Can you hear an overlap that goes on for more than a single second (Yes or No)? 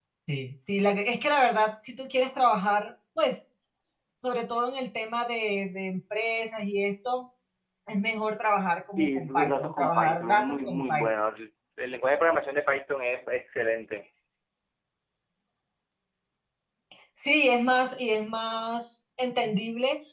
Yes